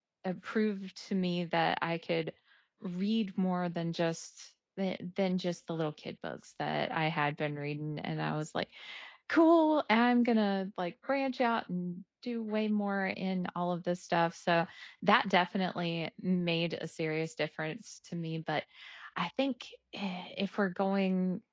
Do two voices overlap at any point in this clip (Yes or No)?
No